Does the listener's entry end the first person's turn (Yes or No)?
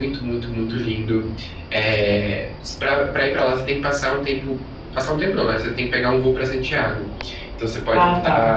No